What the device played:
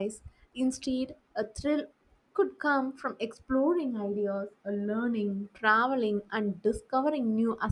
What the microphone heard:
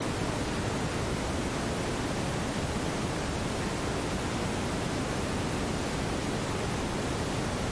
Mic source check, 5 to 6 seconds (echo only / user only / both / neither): neither